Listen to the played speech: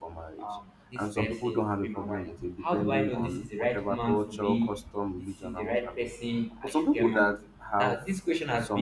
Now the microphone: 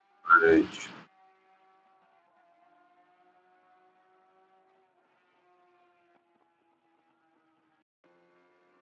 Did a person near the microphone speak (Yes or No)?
Yes